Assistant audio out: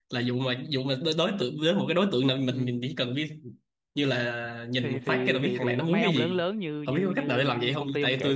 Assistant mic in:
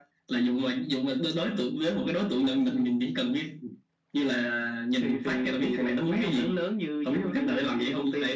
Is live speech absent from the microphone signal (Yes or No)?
Yes